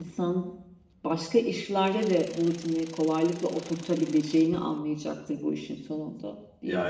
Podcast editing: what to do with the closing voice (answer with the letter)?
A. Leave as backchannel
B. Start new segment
B